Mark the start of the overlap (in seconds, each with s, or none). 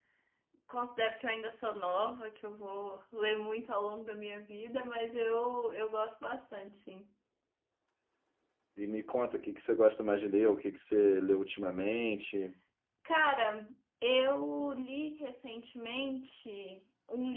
none